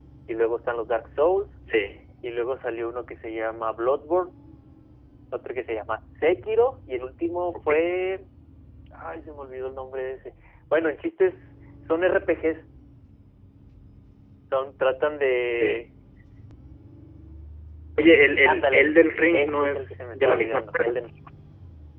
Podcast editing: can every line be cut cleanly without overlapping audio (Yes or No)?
No